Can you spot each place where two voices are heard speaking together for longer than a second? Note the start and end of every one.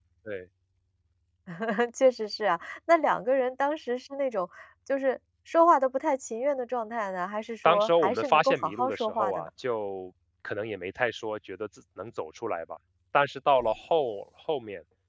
7.6-9.5

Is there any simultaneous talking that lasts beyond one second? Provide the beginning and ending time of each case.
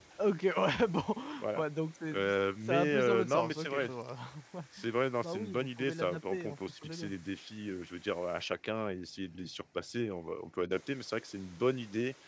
2.6-3.9, 5.2-7.1

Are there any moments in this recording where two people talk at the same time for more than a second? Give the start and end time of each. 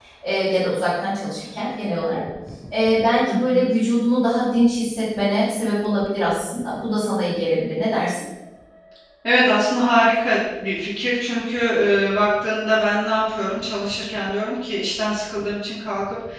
none

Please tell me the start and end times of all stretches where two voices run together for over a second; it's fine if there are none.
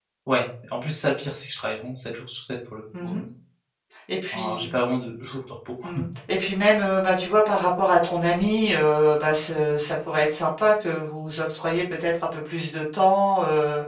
none

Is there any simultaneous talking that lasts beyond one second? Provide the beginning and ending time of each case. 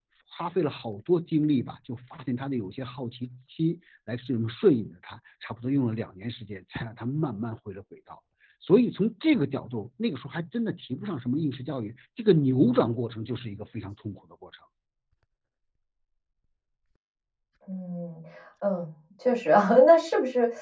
none

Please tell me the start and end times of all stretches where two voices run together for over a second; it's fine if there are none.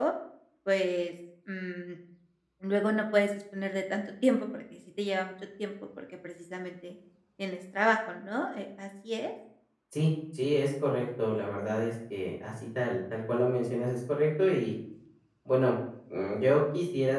none

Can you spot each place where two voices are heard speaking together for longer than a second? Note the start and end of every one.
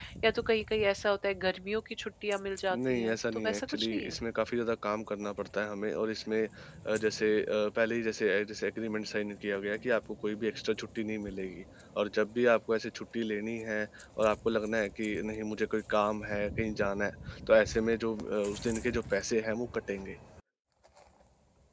2.7-4.2

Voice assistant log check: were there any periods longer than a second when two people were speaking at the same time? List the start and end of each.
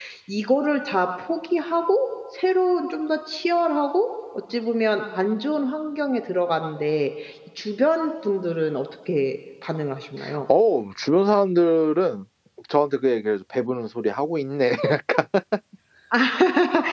none

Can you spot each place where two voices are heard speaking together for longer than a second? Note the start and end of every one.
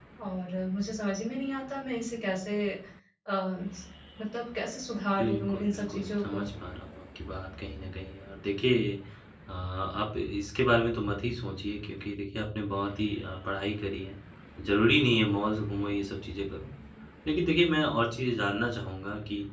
5.2-6.4

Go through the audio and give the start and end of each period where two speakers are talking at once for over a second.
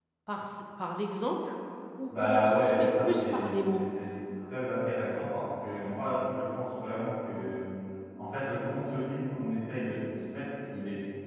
2.1-3.8

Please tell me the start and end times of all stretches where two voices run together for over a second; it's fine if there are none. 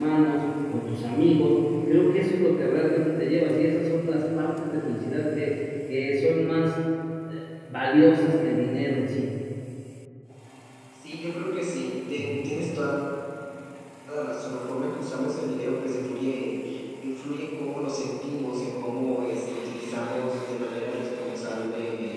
none

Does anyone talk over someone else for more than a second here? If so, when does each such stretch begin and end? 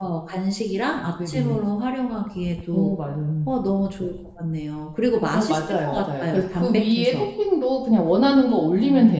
5.3-7.1

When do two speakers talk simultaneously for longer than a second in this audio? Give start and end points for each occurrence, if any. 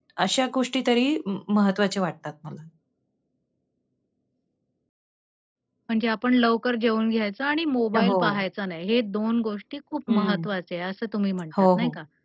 none

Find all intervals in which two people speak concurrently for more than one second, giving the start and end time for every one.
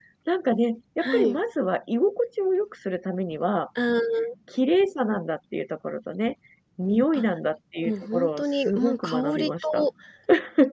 7.8-9.8

